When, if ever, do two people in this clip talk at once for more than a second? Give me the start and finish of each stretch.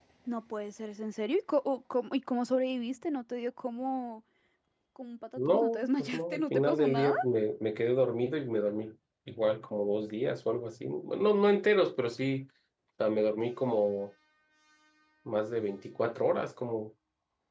5.4-7.1

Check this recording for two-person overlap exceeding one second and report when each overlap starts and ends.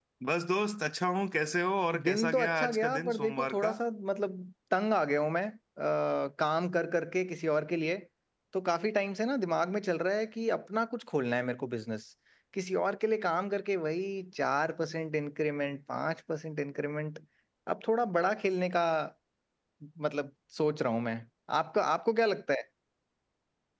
2.0-3.7

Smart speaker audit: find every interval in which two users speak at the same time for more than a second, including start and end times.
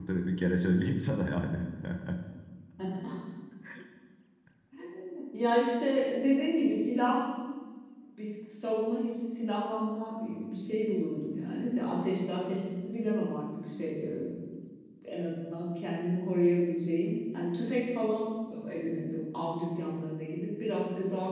none

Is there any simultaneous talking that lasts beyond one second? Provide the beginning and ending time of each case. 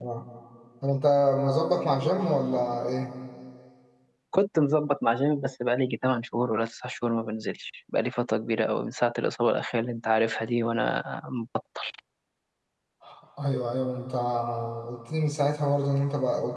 none

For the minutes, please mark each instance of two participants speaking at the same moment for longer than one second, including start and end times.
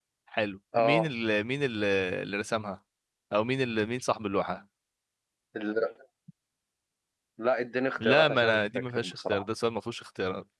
8.0-9.4

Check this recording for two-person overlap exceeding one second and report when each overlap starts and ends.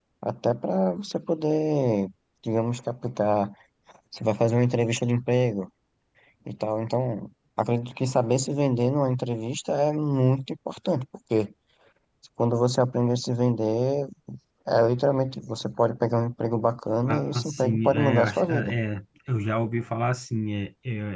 17.1-18.7

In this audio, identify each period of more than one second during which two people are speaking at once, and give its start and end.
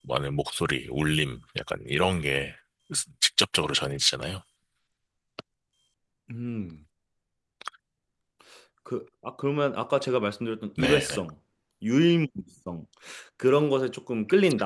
none

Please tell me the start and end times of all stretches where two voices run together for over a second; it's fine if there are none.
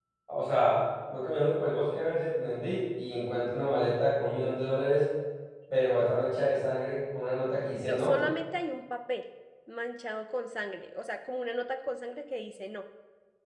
none

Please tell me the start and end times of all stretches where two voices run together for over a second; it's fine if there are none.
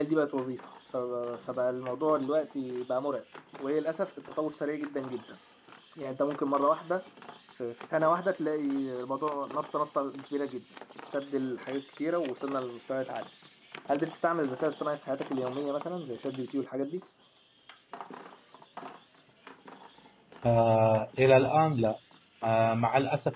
none

